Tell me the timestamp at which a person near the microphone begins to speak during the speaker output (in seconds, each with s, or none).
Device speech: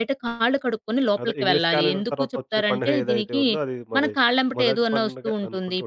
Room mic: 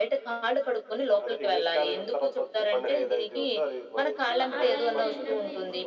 4.3 s